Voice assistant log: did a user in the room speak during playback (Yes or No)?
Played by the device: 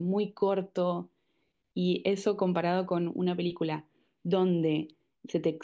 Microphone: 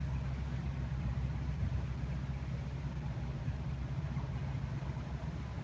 No